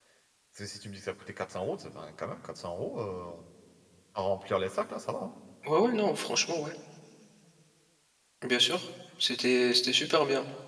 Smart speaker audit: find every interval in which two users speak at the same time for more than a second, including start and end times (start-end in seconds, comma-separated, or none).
none